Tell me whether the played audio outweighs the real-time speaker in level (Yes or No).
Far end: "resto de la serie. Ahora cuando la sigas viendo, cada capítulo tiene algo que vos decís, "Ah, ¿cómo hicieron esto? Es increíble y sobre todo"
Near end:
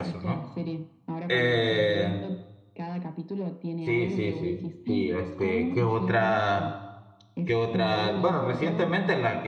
No